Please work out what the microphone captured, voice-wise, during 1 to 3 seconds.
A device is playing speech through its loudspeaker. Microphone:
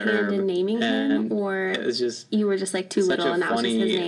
echo only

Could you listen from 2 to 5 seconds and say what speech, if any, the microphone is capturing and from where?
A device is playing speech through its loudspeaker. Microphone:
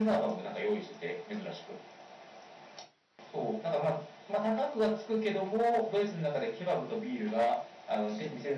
echo only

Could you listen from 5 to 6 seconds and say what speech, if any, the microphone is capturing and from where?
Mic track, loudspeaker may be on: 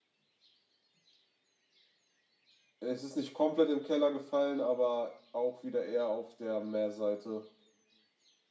user only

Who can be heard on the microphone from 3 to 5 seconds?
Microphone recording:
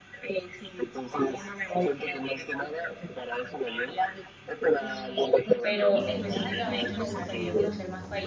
echo only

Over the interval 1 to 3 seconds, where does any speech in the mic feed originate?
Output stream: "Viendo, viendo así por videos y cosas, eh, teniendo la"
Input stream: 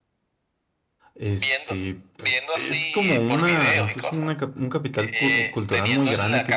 both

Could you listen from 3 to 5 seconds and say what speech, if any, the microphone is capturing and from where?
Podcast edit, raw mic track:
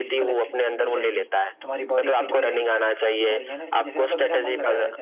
both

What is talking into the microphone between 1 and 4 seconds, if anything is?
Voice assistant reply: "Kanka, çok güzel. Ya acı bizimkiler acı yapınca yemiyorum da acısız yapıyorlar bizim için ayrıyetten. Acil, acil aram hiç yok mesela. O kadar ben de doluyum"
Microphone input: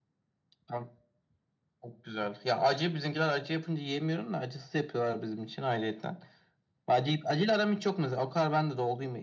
echo only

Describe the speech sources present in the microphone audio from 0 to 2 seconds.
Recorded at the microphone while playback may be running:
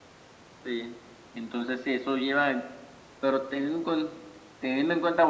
echo only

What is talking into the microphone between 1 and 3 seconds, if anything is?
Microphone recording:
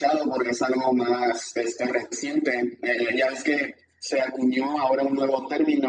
echo only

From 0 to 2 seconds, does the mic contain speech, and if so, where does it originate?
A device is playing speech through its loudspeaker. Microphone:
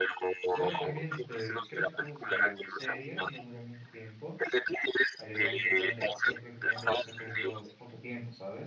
both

